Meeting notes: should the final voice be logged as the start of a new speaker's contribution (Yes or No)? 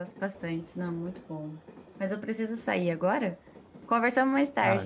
Yes